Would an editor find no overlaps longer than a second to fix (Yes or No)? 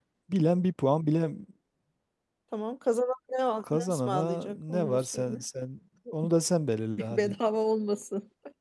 No